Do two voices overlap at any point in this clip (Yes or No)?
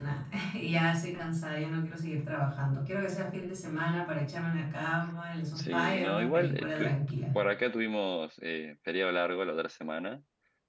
Yes